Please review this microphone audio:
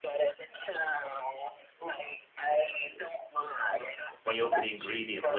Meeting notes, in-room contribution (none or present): present